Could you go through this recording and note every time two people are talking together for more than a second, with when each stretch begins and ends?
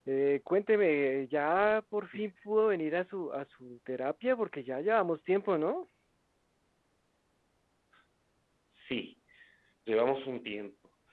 none

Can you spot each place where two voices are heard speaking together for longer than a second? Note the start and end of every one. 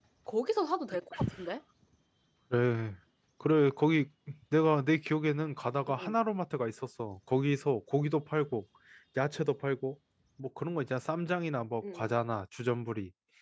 none

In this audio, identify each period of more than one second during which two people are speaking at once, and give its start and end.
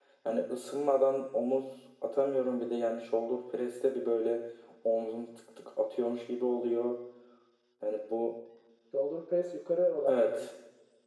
none

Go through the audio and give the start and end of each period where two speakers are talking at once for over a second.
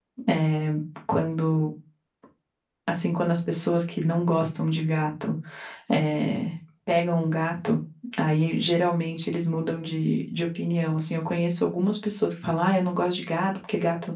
none

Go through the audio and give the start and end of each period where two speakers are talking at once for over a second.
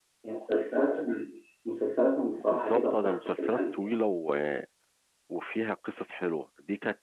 2.4-3.9

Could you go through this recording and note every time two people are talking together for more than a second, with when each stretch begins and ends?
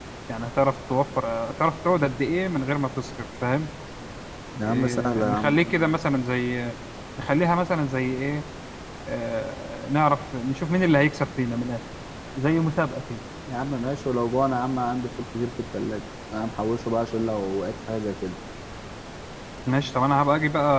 4.6-6.0

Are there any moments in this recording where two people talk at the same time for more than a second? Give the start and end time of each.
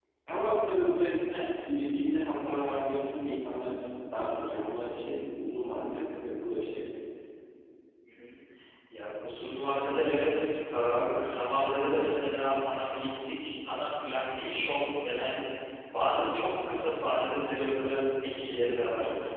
none

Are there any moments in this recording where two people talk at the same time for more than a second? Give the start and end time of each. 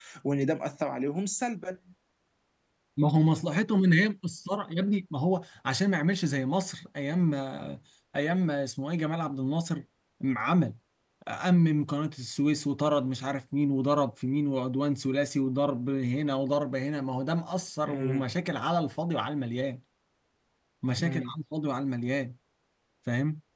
none

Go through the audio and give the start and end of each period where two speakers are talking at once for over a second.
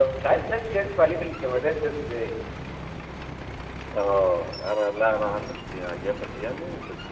none

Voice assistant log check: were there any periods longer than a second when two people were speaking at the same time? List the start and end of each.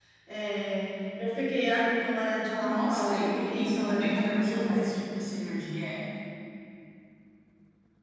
2.6-4.9

